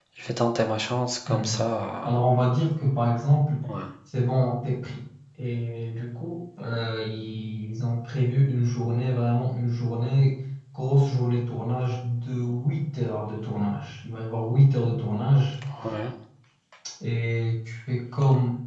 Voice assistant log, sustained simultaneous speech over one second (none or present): none